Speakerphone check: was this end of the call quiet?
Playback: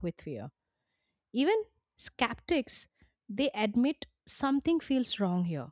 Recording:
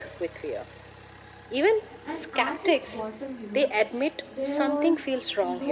No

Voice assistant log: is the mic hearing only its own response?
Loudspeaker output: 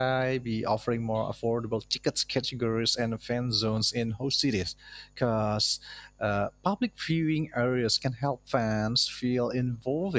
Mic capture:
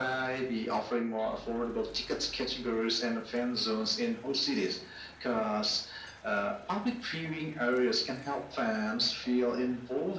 Yes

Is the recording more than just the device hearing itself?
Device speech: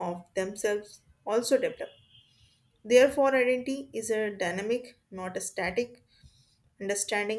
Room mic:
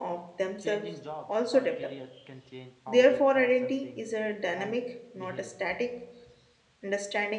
Yes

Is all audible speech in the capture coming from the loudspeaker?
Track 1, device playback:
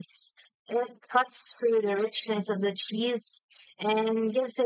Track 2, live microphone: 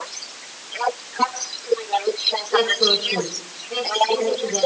No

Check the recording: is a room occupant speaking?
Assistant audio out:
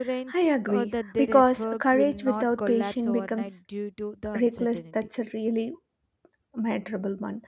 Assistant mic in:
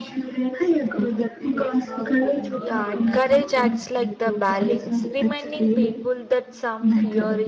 Yes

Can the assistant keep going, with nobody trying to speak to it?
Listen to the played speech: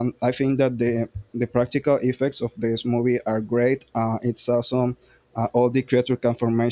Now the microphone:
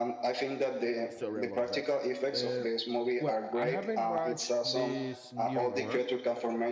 No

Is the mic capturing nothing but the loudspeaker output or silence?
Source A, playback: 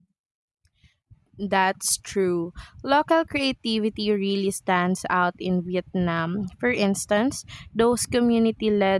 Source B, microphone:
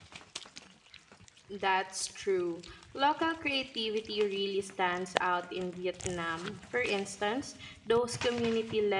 Yes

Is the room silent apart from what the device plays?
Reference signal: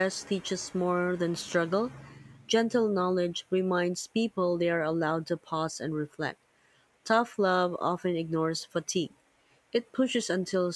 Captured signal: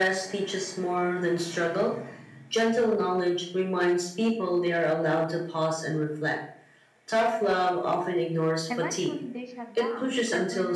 No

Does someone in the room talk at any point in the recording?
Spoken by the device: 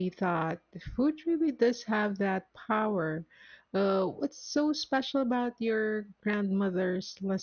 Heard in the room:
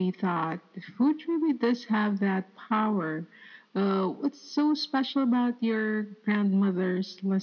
No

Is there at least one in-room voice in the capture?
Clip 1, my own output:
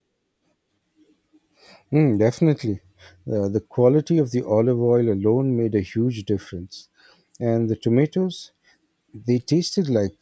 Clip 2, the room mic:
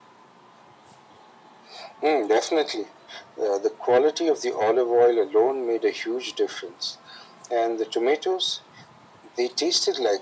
No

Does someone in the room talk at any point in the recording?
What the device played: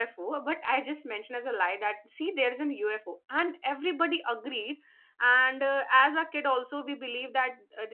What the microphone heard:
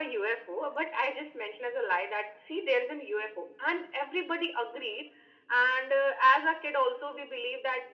No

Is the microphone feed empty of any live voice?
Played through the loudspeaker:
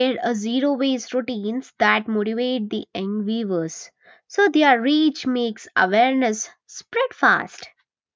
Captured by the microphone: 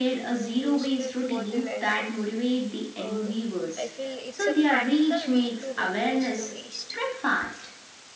No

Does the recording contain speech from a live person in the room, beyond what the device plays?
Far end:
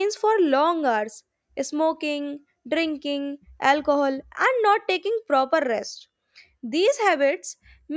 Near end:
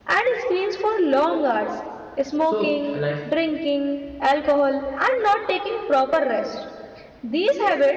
Yes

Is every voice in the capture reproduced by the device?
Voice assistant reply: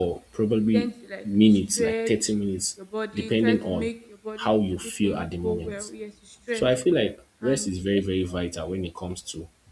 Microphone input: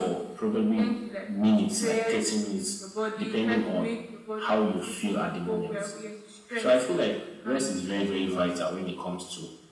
Yes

